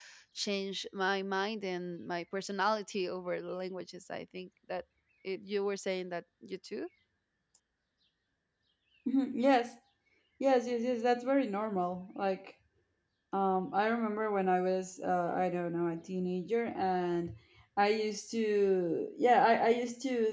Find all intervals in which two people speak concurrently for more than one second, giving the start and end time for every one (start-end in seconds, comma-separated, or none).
none